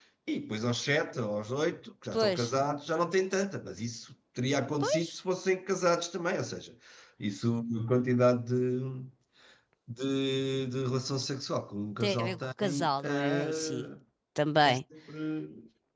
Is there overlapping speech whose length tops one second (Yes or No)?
Yes